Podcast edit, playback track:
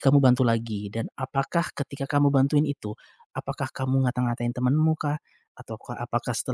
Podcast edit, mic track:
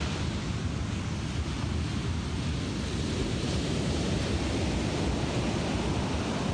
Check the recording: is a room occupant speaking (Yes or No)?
No